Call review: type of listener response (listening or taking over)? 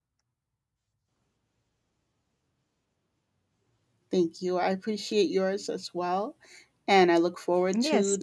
taking over